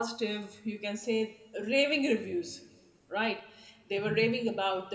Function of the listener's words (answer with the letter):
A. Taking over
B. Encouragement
B